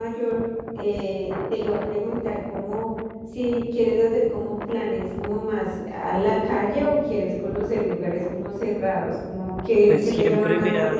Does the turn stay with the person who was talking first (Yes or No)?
No